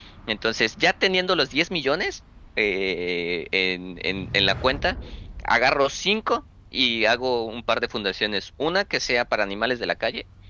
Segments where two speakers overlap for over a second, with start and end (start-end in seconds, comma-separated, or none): none